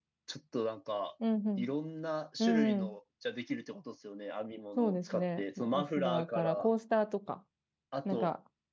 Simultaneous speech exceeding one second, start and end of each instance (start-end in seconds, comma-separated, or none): 4.8-6.7